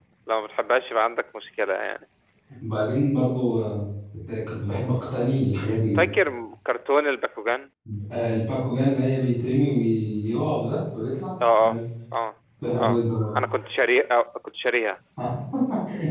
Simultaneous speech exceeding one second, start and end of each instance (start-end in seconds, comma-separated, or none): none